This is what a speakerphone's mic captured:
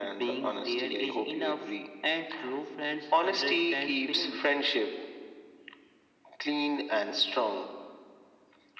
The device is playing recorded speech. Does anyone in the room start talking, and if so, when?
none

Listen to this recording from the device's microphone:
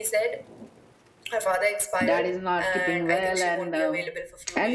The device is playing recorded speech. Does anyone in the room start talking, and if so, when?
2.0 s

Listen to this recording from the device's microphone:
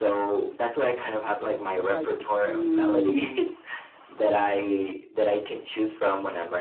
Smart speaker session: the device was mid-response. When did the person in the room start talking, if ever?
1.6 s

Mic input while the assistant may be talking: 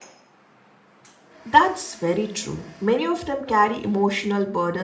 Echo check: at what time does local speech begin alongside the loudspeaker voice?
1.4 s

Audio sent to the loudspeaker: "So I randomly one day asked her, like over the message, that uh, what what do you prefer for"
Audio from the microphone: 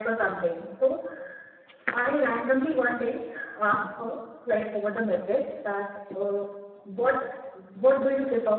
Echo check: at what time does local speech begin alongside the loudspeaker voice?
none

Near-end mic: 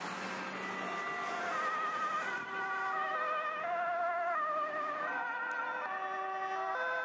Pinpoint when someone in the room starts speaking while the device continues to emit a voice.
none

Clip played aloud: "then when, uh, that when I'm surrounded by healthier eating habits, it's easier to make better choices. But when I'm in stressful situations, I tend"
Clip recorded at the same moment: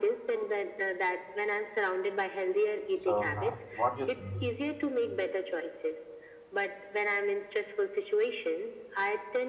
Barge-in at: 2.9 s

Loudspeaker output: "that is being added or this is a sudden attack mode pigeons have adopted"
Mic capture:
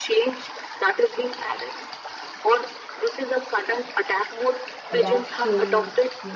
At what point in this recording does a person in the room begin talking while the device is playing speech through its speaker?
4.9 s

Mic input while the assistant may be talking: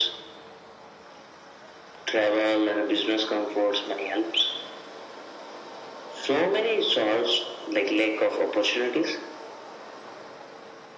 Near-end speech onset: none

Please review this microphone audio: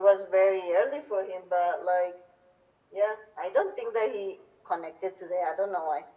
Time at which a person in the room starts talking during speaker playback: none

